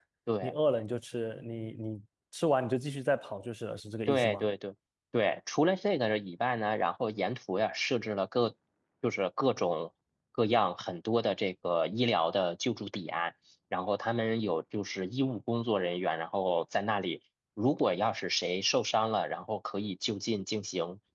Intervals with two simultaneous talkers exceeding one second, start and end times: none

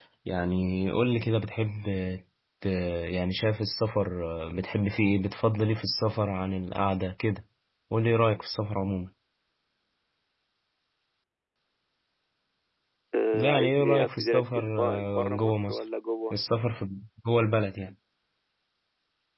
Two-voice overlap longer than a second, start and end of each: 13.3-15.8

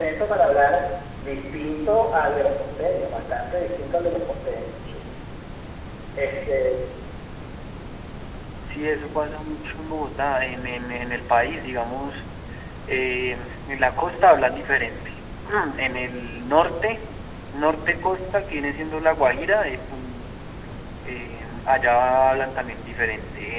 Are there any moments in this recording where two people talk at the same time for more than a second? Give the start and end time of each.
none

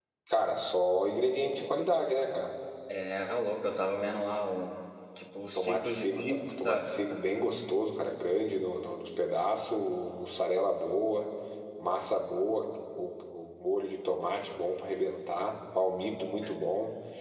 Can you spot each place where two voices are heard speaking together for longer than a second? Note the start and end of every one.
5.5-6.9

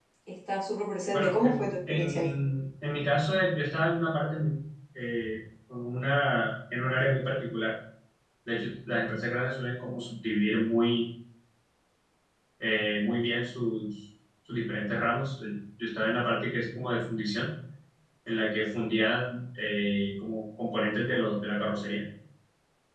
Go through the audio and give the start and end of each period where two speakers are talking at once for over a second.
1.1-2.3

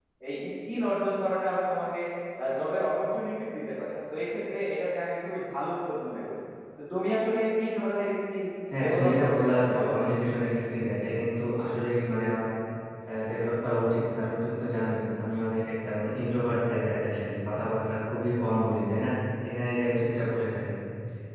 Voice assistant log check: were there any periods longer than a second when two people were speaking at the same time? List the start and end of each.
8.8-10.0

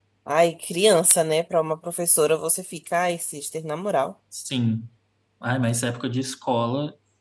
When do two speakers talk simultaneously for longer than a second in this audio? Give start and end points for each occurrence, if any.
none

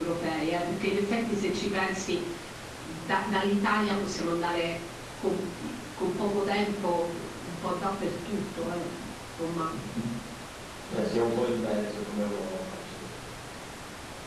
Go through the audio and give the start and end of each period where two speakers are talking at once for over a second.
none

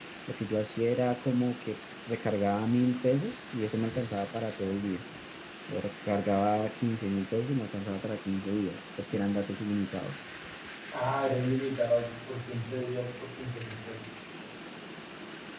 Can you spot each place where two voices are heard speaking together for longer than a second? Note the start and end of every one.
none

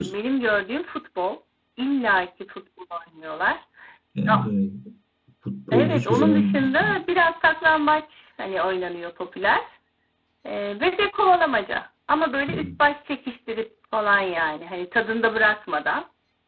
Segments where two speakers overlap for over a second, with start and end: 5.7-7.0

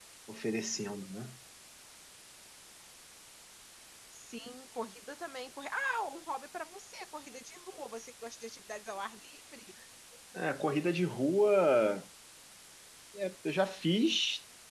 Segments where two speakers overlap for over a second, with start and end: none

